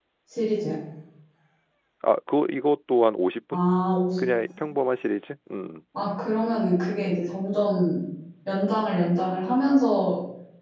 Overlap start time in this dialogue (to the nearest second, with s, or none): none